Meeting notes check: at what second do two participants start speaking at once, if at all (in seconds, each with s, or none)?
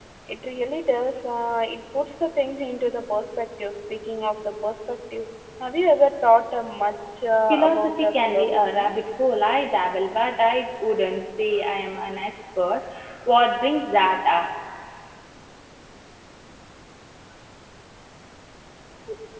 7.5 s